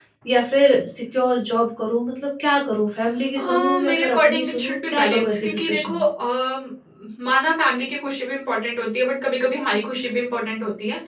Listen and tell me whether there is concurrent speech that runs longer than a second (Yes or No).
Yes